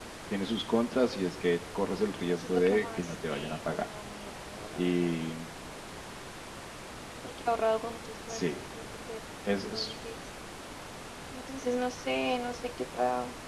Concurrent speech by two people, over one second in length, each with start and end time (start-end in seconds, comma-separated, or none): 2.3-3.9